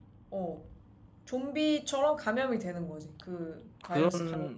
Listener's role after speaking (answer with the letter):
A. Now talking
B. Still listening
A